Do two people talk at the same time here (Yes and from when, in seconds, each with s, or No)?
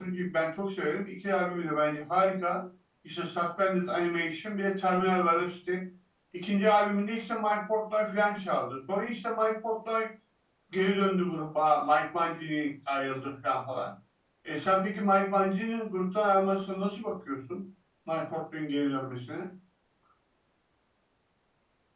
No